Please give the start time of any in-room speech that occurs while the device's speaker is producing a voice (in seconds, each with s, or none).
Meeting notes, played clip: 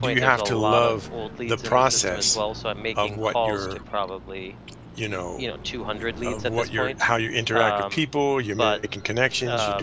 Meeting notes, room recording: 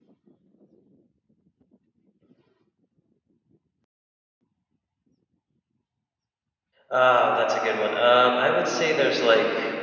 6.9 s